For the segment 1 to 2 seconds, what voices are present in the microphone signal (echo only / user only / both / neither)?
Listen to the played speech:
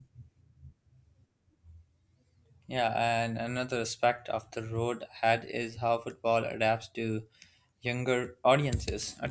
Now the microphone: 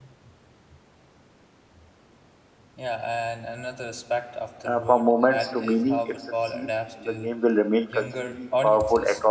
neither